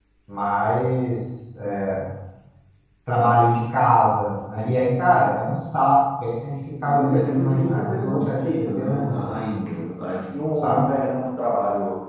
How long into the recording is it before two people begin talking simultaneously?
6.8 s

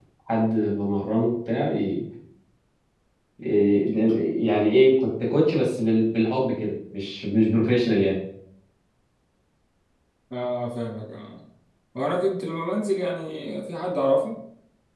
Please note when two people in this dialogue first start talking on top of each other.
none

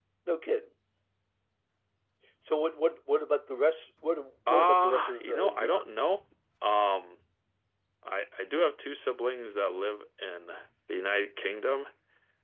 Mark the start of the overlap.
4.5 s

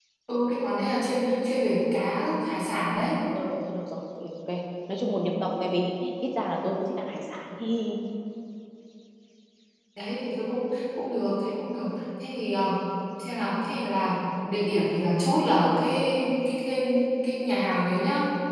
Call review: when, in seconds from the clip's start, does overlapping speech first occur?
none

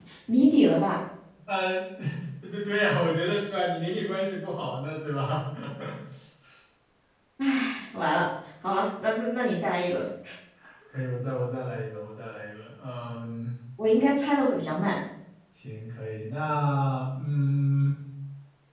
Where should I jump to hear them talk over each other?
none

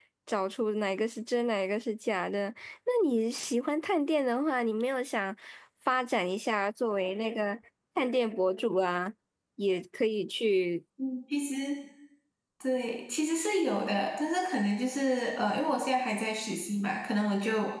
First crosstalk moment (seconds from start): none

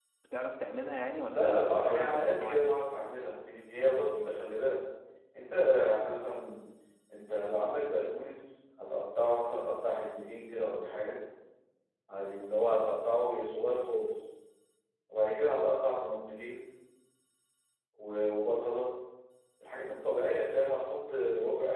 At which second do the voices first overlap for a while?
1.3 s

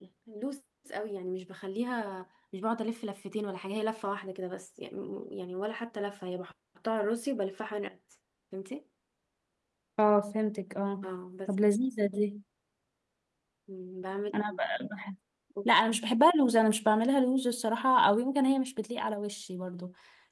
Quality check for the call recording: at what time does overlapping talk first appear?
none

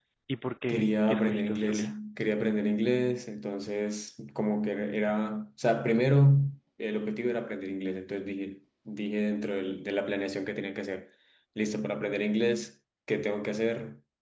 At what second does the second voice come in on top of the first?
0.7 s

